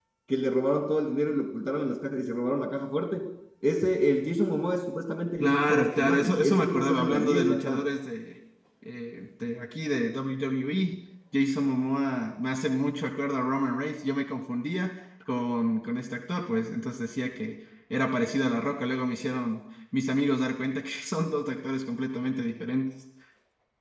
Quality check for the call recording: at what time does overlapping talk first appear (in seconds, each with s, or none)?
5.4 s